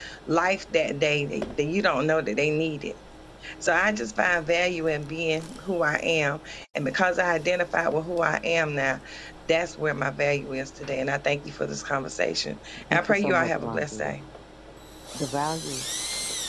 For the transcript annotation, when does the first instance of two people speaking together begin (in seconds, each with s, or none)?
12.9 s